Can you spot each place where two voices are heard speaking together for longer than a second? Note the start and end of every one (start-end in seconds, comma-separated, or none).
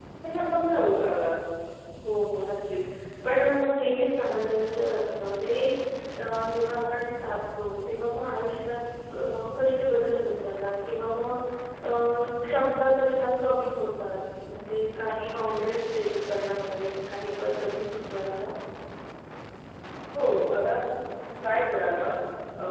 none